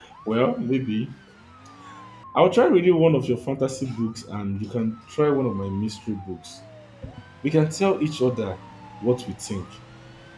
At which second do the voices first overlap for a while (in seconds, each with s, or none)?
none